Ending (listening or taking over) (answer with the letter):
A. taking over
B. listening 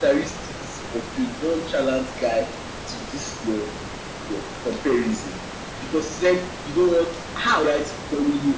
B